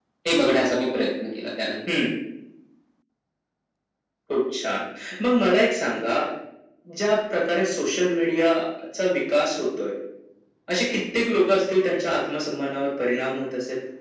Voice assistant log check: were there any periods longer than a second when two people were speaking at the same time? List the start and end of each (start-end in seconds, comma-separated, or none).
none